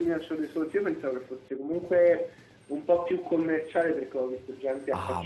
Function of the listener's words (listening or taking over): taking over